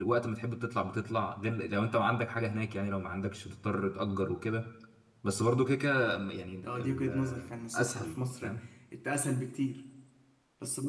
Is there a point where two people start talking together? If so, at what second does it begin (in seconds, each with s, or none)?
6.6 s